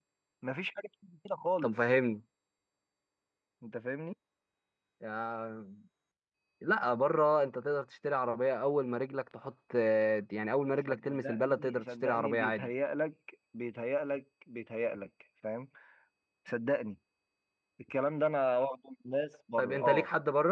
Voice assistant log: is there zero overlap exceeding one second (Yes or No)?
No